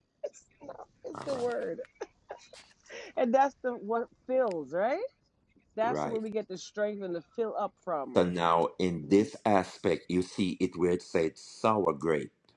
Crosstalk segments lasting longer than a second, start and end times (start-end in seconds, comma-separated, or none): none